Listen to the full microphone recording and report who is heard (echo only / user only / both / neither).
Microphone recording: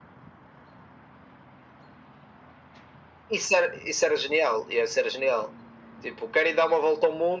echo only